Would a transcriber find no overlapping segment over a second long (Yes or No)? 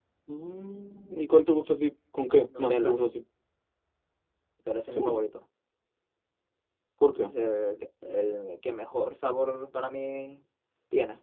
Yes